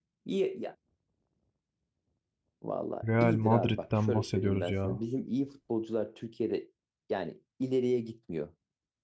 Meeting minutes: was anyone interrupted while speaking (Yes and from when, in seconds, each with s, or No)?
Yes, from 3.2 s